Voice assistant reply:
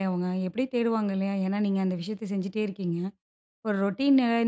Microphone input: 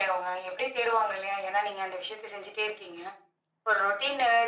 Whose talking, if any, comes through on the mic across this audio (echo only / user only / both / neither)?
echo only